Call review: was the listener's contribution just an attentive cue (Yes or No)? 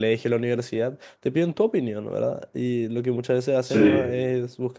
Yes